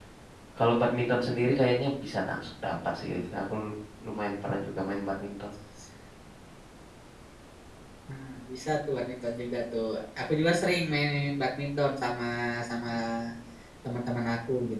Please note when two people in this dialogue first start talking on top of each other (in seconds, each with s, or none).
none